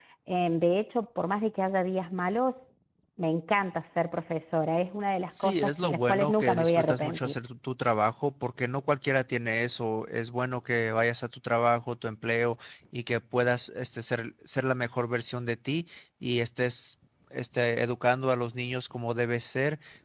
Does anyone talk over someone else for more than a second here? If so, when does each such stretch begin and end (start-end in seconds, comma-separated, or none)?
5.4-7.3